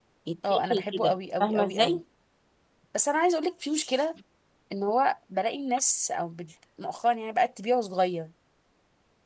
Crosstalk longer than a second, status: present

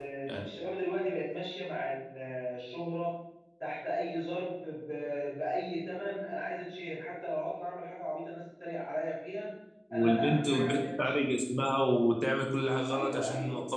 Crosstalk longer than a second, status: present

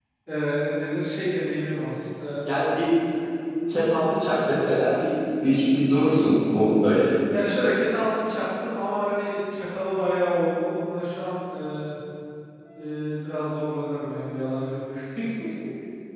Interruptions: none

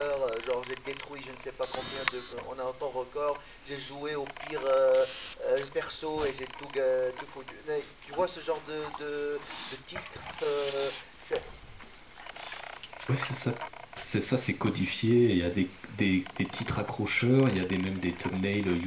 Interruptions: none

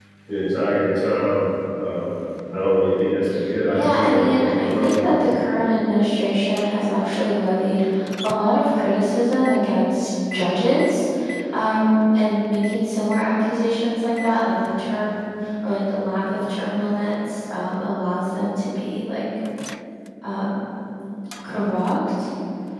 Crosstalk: present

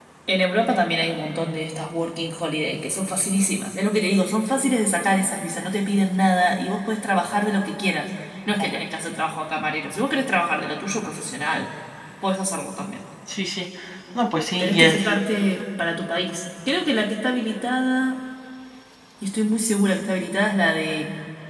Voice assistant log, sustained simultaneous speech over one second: none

